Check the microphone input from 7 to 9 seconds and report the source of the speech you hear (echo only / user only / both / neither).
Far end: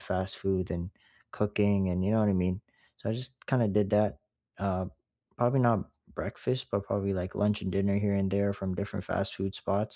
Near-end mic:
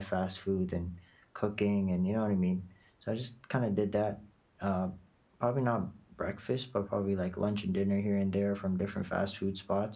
echo only